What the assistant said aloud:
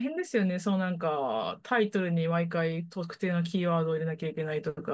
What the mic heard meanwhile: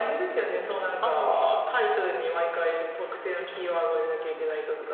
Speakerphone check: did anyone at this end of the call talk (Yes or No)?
Yes